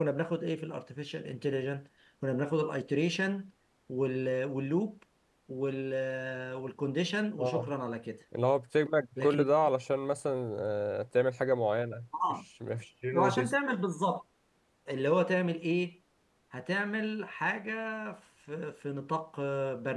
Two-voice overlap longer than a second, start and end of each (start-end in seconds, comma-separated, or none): none